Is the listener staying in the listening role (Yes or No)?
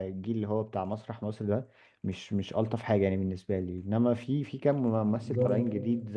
Yes